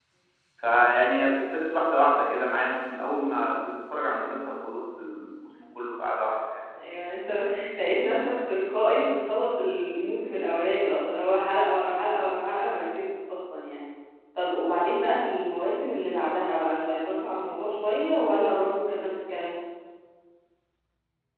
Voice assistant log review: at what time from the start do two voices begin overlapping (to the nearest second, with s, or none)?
none